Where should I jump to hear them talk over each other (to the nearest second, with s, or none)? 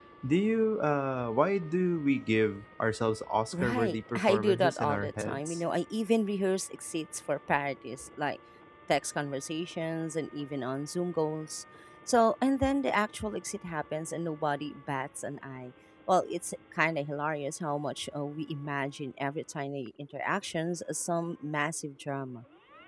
4 s